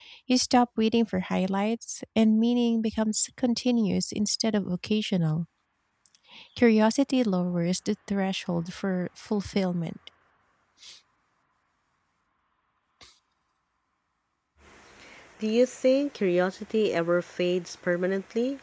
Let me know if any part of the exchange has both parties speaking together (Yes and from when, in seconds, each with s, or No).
No